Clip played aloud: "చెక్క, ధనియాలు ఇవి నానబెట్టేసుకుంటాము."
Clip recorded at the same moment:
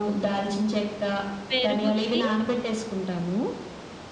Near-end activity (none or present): present